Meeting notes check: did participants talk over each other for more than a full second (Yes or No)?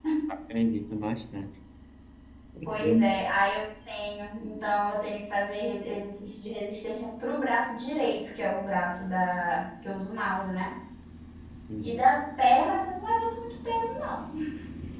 No